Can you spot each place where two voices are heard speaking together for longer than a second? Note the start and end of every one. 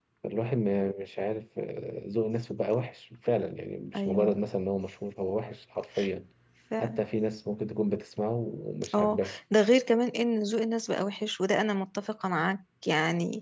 none

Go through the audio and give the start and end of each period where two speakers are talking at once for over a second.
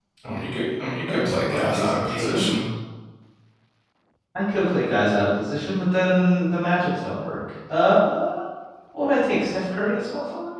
1.1-2.5

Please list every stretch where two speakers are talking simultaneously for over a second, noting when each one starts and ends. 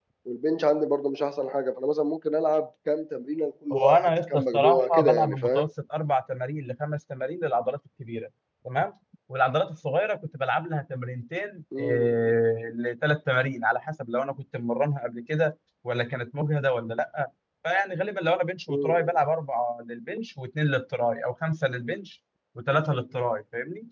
3.7-5.7

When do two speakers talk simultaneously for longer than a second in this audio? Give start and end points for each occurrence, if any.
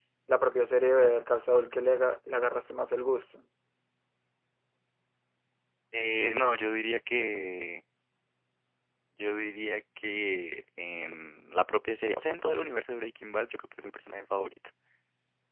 none

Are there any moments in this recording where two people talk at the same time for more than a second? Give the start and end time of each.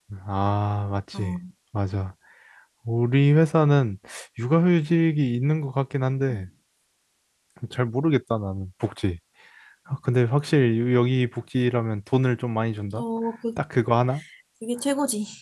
none

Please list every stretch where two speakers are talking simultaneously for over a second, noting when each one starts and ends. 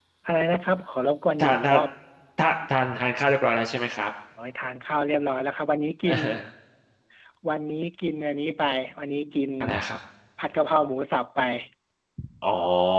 none

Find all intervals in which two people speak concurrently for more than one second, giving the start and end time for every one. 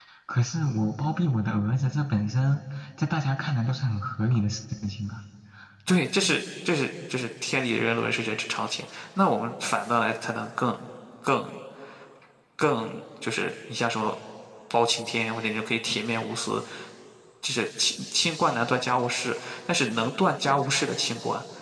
none

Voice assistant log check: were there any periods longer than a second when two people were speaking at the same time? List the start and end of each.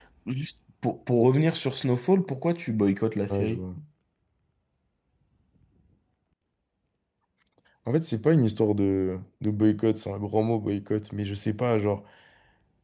none

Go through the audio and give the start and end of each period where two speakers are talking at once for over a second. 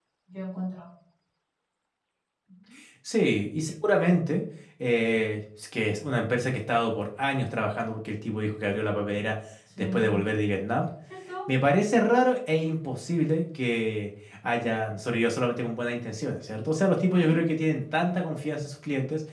none

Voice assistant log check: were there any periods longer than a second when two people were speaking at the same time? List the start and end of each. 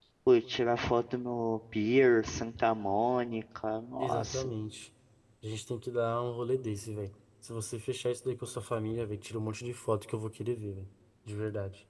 none

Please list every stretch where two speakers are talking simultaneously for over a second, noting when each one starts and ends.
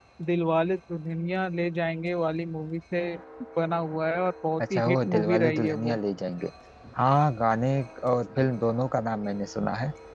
4.7-6.0

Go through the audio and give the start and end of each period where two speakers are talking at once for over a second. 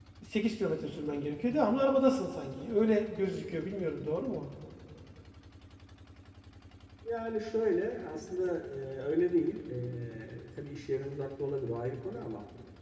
none

